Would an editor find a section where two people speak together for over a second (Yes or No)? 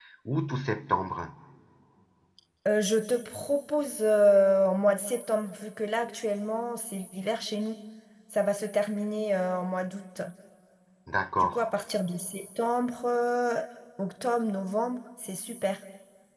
No